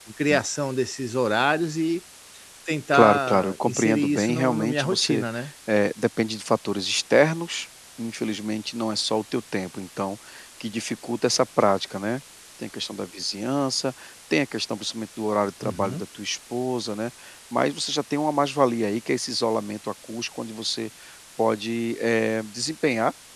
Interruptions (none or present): present